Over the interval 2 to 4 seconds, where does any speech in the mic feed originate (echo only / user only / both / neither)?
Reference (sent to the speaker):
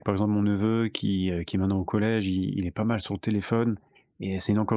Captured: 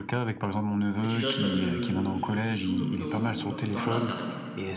both